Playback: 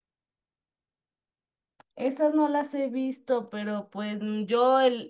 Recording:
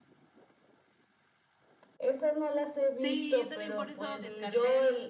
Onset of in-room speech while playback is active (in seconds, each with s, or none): 2.8 s